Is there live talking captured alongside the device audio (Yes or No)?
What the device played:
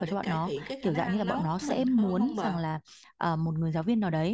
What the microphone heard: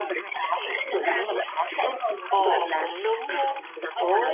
Yes